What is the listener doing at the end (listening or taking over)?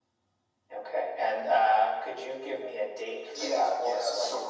taking over